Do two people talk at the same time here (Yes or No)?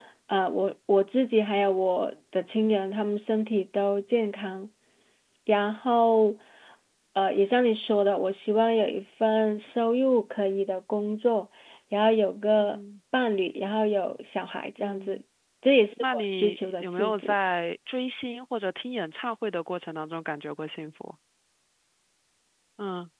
Yes